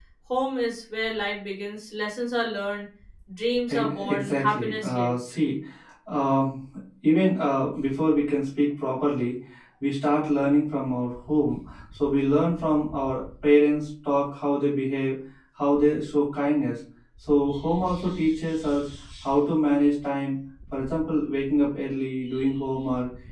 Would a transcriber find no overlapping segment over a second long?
No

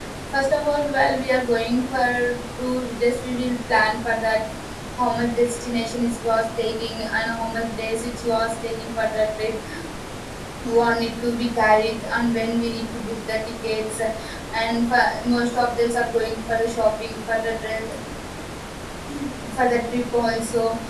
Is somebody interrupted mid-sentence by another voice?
No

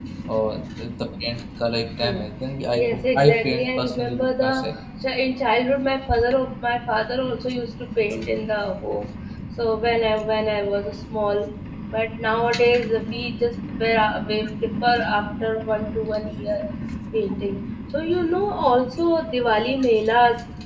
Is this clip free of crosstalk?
No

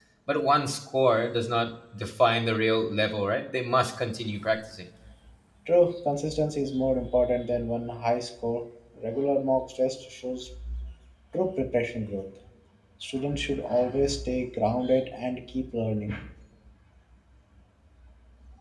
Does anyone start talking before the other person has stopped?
No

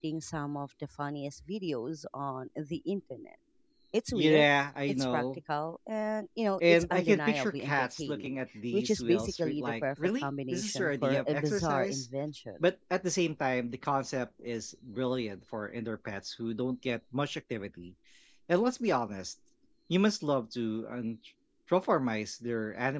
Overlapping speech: Yes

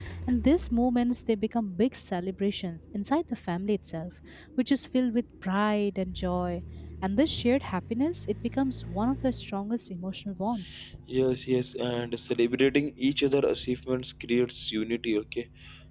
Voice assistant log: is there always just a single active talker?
Yes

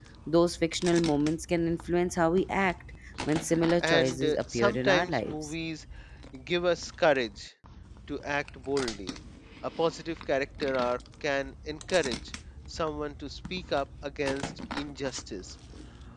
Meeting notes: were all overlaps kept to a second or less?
No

